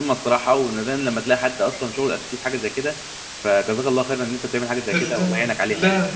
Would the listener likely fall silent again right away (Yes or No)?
No